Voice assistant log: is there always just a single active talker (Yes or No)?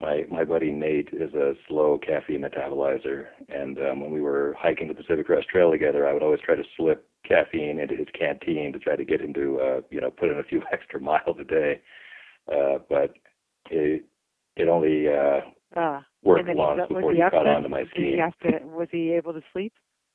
No